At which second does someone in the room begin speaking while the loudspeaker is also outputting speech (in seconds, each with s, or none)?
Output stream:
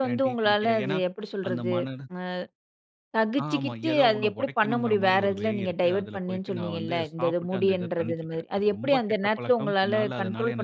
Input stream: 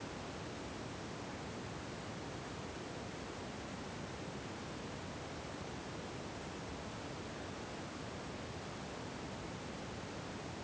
none